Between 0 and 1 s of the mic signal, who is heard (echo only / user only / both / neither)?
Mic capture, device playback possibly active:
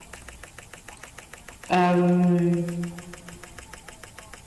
neither